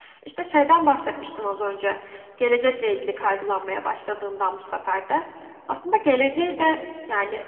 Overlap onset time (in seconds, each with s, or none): none